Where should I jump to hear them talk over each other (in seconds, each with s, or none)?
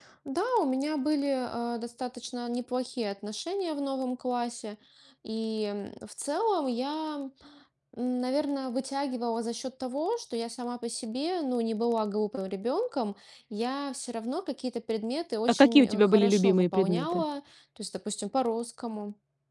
15.5 s